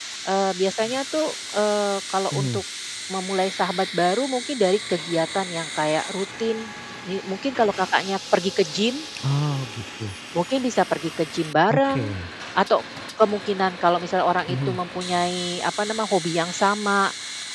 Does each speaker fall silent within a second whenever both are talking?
Yes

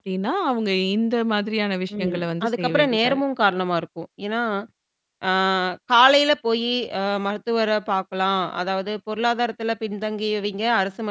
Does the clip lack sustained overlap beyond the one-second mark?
No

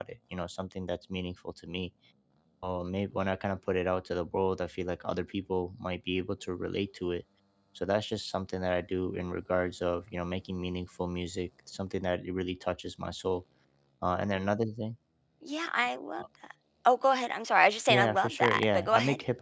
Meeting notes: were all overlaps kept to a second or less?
No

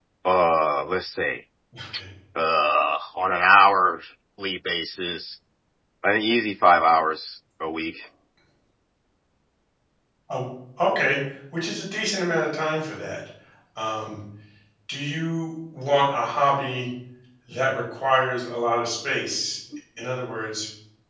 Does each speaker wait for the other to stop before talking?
Yes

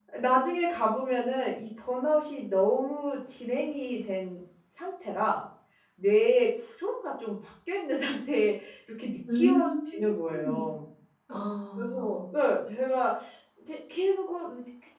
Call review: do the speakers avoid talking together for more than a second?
No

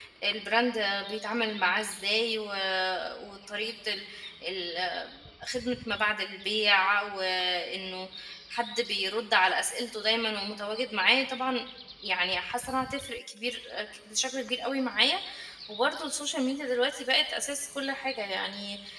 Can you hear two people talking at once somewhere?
No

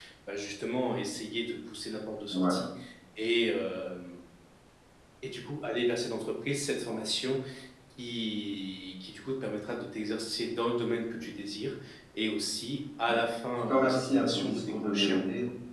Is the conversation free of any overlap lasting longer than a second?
No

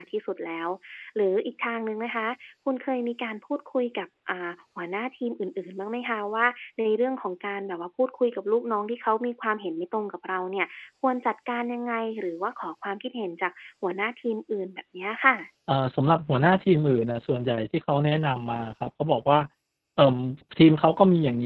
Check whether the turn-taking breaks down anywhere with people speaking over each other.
No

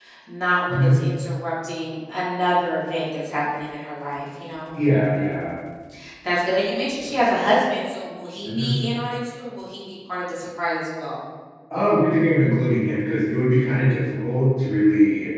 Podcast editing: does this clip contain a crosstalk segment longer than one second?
No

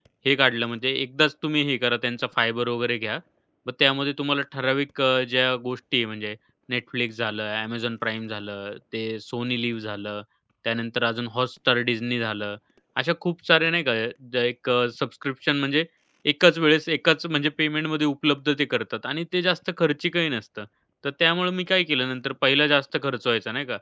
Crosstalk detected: No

